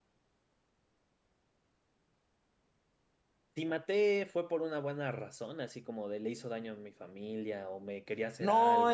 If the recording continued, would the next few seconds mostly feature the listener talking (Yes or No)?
Yes